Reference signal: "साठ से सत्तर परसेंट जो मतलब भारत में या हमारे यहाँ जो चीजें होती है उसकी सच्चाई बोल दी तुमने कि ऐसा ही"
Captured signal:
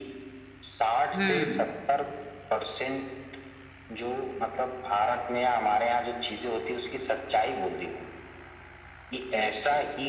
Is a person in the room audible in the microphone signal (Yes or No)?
Yes